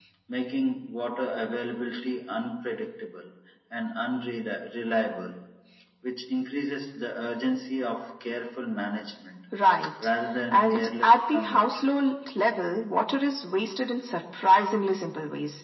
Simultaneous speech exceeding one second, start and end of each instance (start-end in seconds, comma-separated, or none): 10.5-11.8